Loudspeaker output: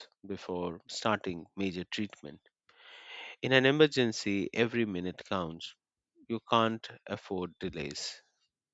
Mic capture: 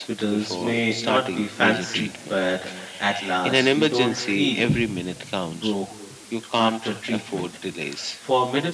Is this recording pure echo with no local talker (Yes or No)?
No